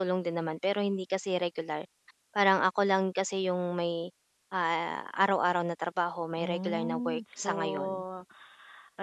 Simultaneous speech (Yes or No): Yes